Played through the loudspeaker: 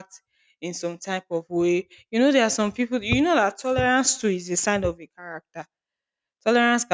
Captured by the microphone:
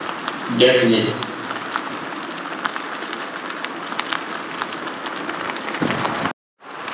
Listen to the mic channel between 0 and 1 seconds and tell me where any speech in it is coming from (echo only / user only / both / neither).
user only